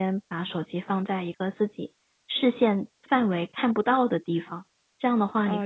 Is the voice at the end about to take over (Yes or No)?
Yes